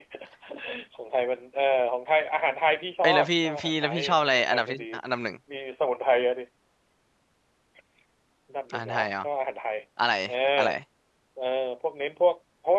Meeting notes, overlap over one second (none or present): present